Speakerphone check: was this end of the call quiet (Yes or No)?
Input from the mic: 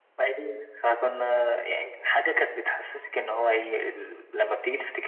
Yes